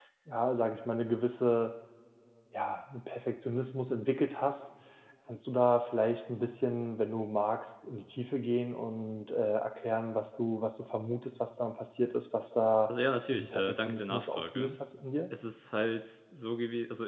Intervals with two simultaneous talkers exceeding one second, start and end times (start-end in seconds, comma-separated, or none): 13.3-14.8